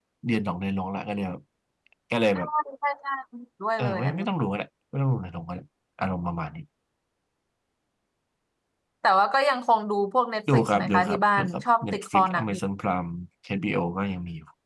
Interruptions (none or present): present